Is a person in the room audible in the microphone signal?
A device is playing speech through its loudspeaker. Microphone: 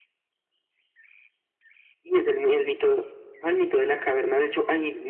No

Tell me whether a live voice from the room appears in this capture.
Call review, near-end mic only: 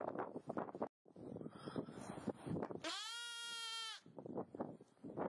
No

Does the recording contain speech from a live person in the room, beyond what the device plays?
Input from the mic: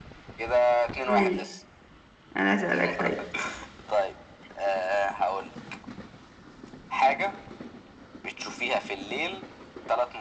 Yes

